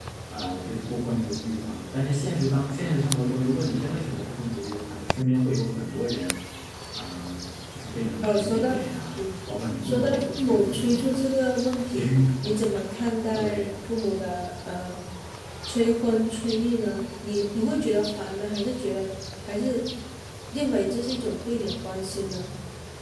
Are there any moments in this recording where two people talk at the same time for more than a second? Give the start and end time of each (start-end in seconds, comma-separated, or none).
9.8-11.2